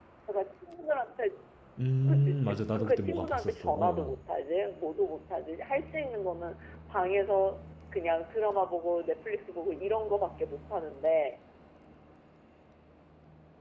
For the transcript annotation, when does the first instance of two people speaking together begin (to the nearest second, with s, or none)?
2 s